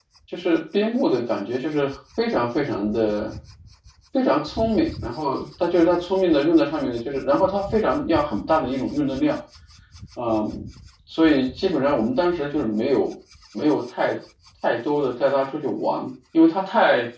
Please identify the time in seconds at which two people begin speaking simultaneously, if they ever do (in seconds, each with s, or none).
none